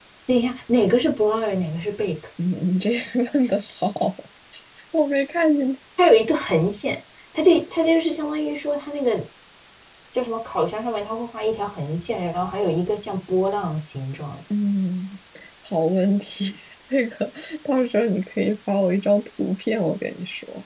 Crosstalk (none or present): none